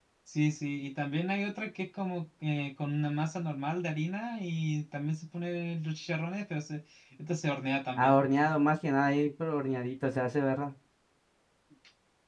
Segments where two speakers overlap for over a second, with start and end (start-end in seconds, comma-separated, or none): none